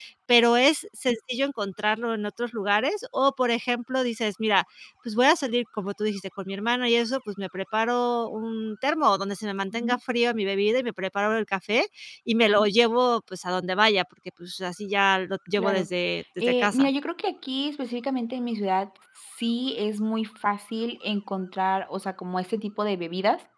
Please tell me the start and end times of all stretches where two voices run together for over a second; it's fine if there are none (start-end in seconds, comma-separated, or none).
none